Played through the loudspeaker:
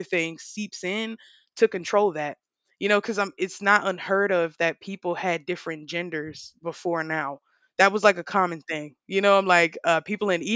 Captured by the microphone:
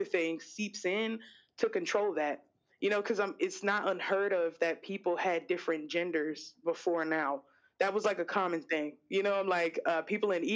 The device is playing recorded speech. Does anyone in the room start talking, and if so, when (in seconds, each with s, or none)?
none